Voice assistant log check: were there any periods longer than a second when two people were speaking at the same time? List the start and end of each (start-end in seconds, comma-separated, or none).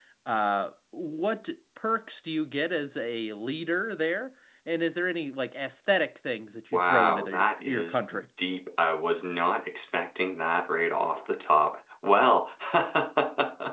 6.7-8.2